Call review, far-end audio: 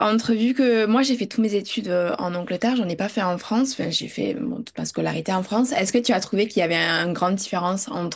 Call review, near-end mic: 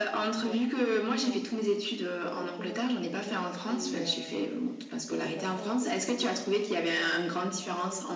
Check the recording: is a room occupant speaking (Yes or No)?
Yes